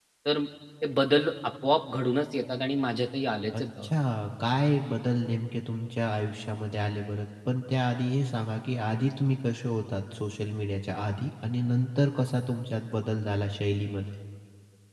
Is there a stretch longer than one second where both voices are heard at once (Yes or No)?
No